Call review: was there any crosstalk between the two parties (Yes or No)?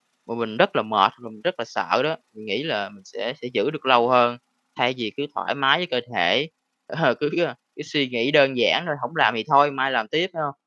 No